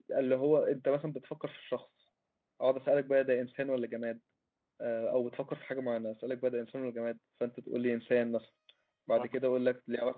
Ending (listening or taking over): listening